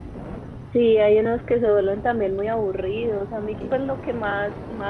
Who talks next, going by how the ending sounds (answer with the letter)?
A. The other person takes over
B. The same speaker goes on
B